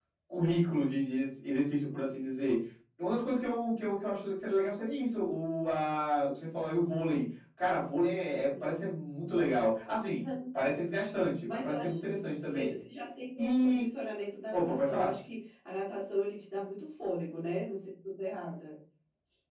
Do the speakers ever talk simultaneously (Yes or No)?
Yes